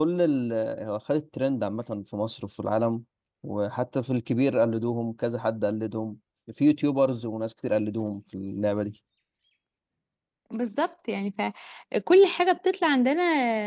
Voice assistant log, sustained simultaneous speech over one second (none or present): none